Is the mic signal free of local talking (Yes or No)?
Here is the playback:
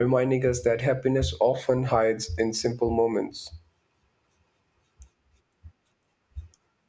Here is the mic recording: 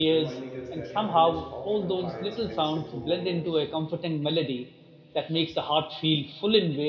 No